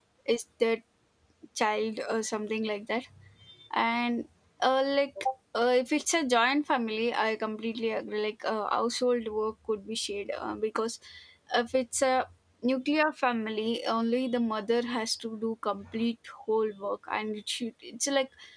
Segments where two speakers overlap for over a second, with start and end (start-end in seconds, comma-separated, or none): none